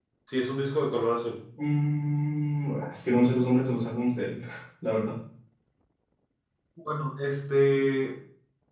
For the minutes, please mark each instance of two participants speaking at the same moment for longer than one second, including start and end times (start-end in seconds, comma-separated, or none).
none